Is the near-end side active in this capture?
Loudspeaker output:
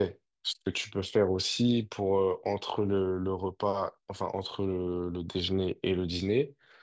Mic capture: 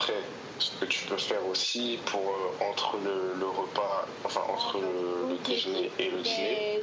Yes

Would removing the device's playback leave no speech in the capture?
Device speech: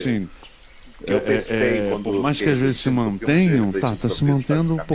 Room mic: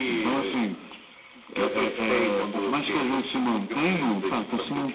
Yes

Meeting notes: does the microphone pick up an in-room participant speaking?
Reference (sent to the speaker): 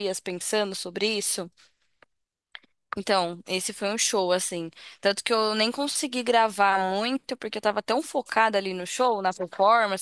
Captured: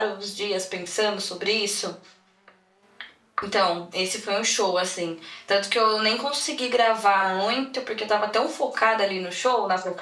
No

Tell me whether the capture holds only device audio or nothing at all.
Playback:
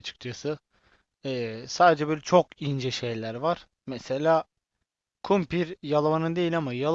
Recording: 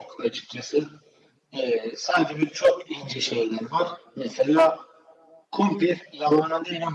Yes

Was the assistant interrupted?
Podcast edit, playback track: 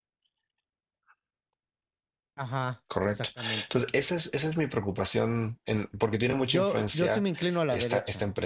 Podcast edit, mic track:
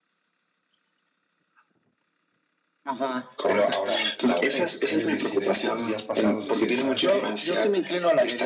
Yes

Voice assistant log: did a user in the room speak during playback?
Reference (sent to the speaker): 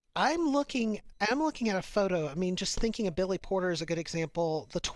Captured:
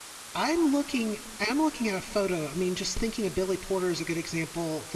No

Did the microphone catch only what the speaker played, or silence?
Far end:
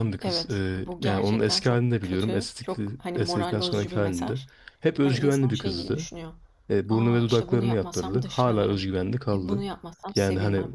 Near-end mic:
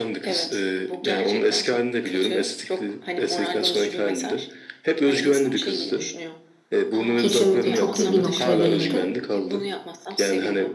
No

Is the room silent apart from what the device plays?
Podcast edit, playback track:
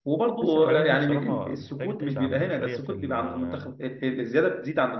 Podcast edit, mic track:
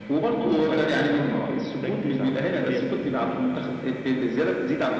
Yes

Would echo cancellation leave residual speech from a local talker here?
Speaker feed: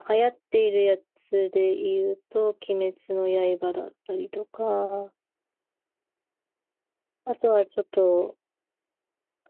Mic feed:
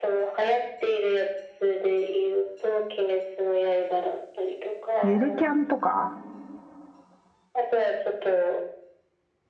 Yes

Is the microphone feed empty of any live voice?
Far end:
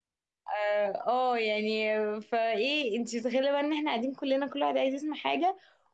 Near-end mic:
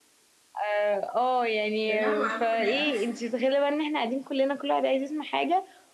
No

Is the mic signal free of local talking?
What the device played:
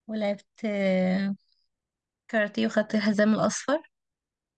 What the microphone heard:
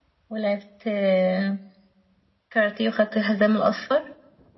Yes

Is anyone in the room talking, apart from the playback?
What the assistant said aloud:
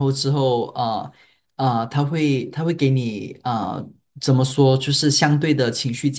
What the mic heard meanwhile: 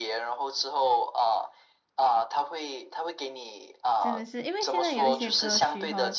Yes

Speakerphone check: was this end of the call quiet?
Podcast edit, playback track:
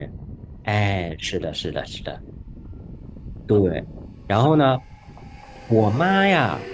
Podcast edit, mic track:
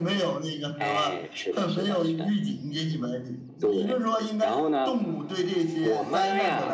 No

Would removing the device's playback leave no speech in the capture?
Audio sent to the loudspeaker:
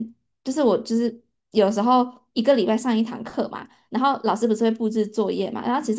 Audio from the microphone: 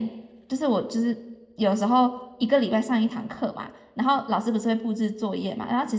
Yes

